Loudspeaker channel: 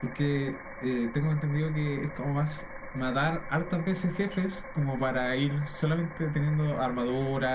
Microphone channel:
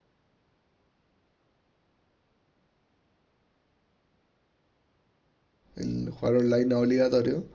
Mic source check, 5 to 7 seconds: user only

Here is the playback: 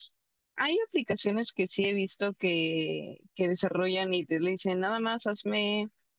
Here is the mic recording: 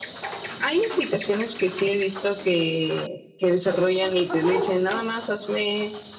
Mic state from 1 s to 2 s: echo only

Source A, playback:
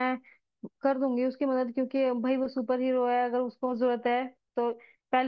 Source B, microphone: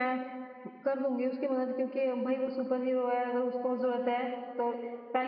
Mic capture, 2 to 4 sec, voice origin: echo only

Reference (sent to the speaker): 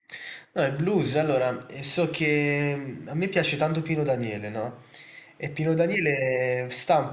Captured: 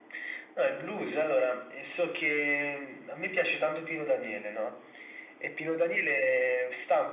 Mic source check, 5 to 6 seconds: echo only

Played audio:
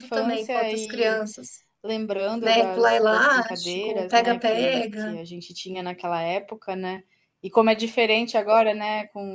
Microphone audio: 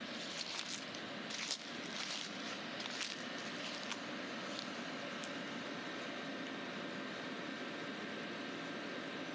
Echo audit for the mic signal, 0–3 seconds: neither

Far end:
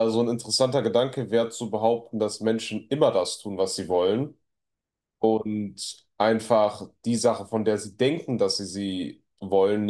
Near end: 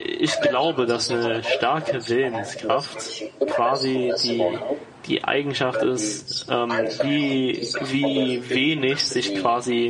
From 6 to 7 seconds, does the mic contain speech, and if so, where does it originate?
both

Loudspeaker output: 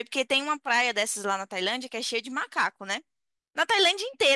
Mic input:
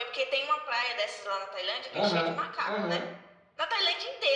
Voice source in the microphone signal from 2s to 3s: both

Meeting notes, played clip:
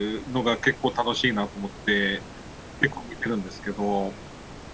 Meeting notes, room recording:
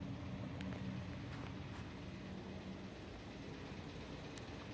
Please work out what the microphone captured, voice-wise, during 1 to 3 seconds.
neither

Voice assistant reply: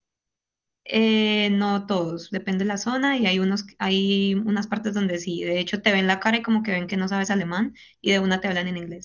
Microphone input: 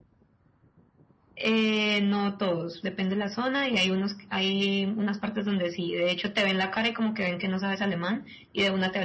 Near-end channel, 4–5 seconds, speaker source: echo only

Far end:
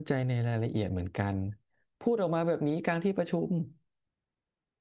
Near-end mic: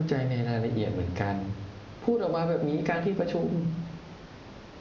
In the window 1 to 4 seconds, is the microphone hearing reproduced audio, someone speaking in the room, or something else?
echo only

